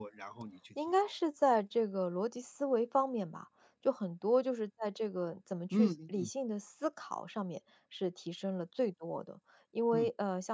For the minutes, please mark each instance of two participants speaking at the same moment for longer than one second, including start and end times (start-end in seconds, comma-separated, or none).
none